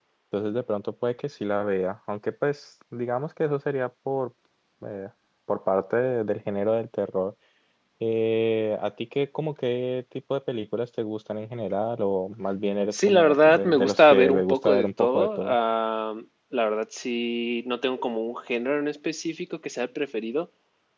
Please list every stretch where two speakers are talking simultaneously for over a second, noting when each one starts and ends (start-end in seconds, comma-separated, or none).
12.9-15.6